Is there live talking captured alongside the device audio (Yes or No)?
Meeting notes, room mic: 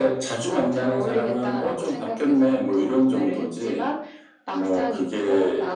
No